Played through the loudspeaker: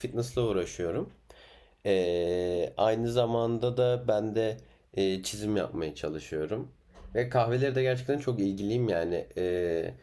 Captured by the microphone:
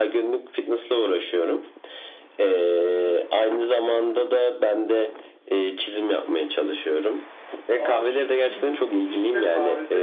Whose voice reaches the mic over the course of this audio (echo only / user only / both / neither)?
both